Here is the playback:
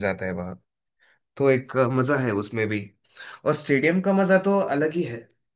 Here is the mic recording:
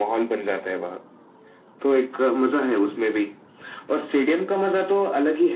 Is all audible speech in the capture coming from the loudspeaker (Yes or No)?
Yes